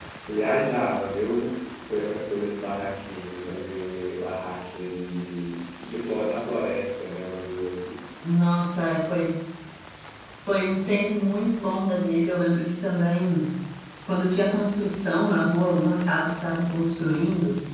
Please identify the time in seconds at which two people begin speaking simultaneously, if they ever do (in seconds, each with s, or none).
none